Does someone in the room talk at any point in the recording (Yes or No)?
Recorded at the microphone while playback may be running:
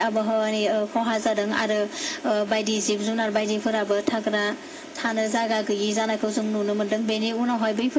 No